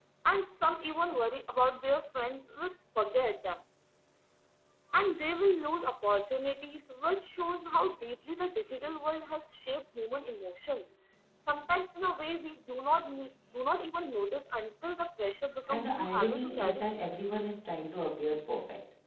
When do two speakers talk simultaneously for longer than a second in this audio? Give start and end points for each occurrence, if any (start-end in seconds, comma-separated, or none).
15.7-16.9